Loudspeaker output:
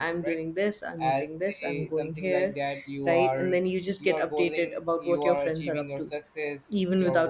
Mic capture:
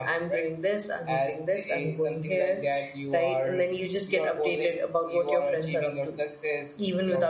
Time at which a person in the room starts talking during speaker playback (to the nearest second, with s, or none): none